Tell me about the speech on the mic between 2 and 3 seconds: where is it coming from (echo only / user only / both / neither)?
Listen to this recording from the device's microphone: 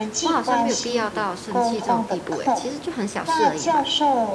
both